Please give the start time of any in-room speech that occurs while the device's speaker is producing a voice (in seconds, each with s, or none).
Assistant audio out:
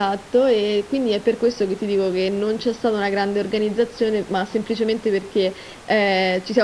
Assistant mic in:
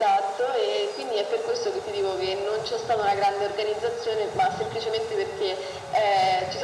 none